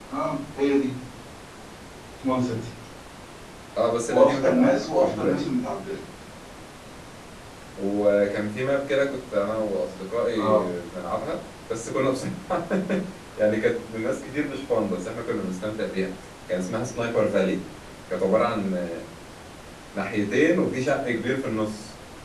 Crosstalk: present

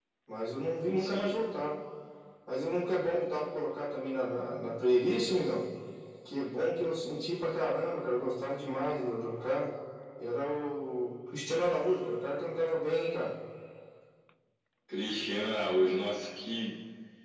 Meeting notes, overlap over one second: none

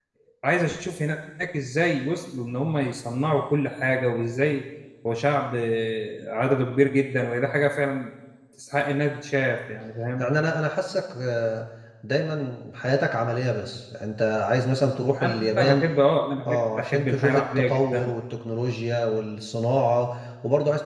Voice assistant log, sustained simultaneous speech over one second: present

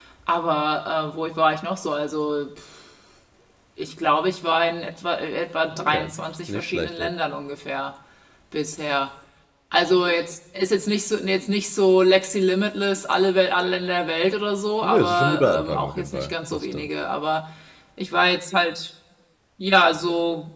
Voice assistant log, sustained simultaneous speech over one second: present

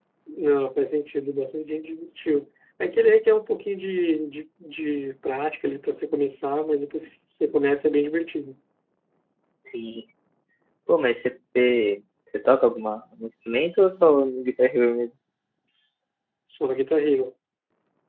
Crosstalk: none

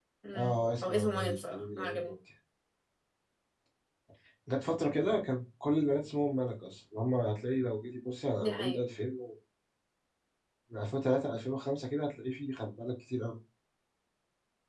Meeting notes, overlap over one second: present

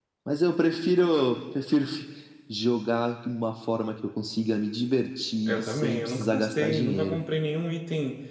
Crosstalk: present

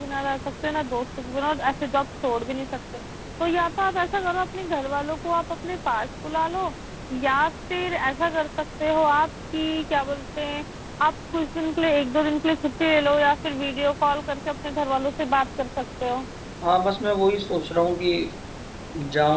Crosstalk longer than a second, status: none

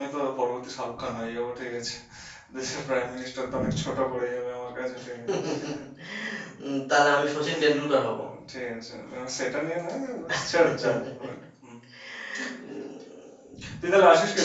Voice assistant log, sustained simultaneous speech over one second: none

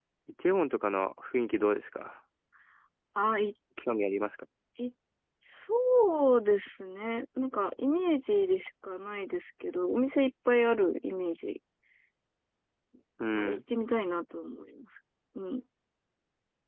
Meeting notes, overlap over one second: none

